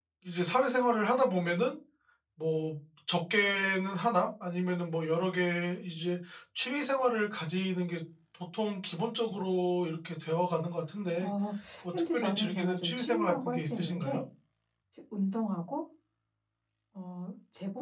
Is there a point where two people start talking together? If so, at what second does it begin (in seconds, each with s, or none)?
11.9 s